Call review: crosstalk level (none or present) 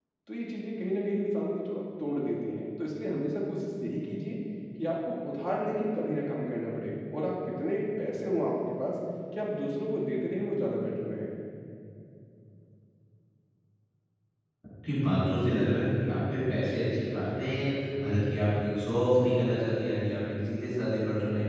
none